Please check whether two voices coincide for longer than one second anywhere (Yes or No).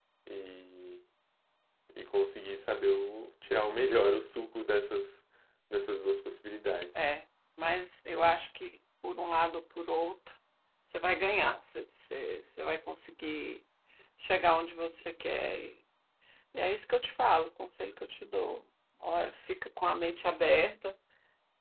No